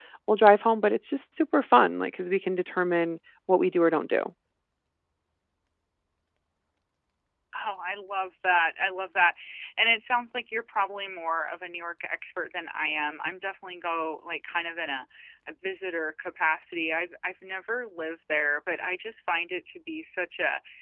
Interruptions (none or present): none